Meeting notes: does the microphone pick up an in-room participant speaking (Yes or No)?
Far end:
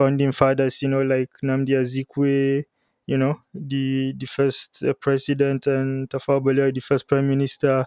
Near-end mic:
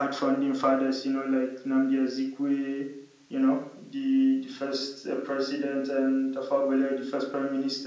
No